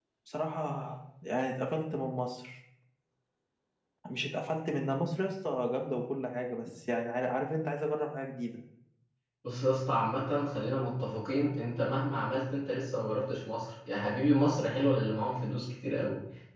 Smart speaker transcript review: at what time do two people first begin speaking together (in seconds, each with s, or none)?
none